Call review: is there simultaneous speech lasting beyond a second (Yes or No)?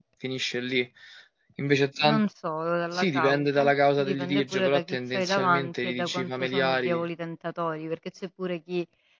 Yes